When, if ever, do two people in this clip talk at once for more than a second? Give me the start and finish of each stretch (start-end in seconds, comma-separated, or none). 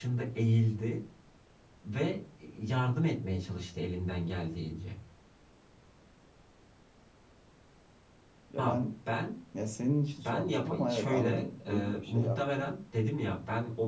10.2-12.7